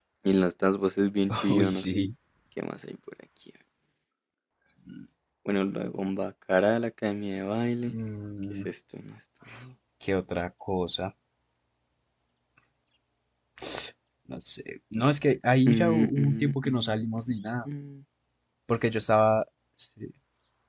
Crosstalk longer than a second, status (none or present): present